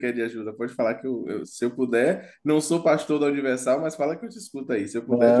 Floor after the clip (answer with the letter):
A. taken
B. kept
A